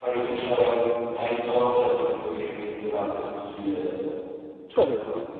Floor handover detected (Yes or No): Yes